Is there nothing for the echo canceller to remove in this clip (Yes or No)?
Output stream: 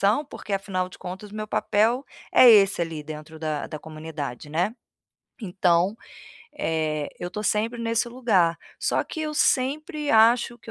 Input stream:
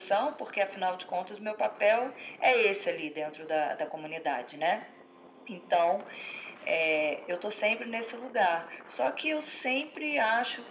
No